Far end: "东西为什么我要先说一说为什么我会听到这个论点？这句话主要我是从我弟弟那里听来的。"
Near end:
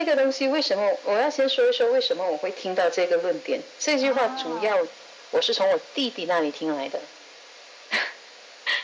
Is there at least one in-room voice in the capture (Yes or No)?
Yes